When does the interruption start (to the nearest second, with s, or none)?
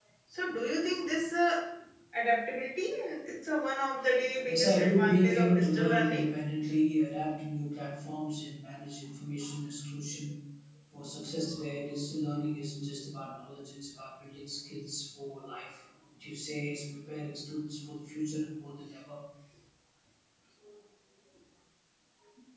4 s